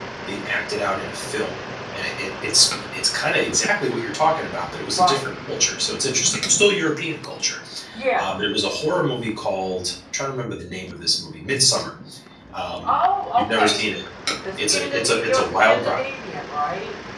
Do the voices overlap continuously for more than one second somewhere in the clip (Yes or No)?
Yes